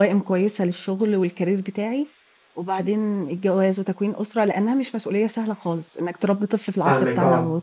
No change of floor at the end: No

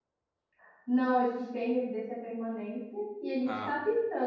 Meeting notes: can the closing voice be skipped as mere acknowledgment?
Yes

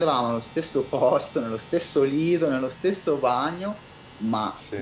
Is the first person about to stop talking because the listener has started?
No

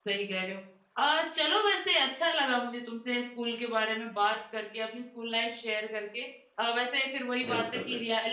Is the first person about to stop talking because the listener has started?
No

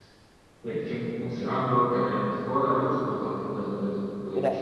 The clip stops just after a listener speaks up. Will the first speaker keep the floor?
No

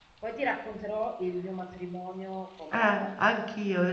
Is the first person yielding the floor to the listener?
Yes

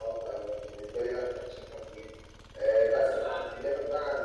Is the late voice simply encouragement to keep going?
Yes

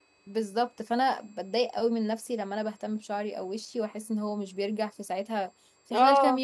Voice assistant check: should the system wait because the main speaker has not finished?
No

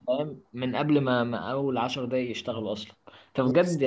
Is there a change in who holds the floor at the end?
No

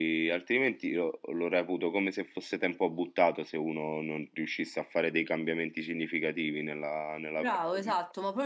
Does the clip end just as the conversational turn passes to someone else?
Yes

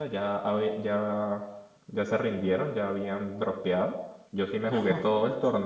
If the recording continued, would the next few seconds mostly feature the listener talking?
No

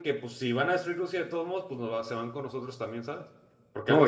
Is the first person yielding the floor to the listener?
Yes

